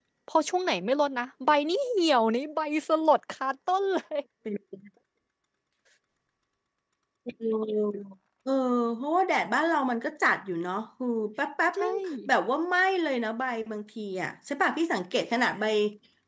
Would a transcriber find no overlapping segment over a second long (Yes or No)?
Yes